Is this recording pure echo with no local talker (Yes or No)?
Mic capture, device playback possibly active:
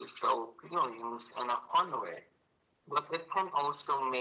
Yes